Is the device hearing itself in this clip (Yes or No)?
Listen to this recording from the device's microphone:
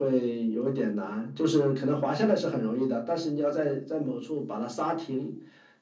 Yes